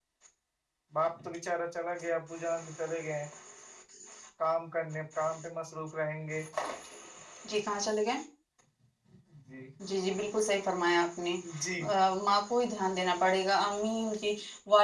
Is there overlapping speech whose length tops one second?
No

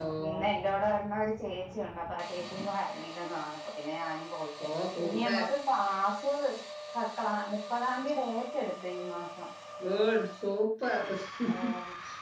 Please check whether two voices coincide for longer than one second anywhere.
No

